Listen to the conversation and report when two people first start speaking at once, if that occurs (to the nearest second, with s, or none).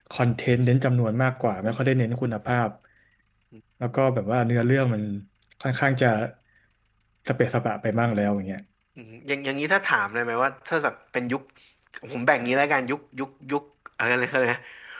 none